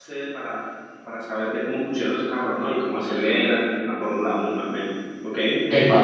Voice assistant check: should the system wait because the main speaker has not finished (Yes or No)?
No